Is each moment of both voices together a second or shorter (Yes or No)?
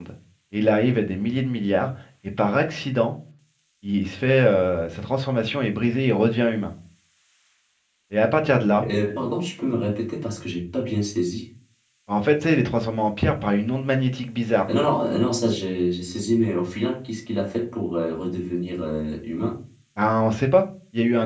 Yes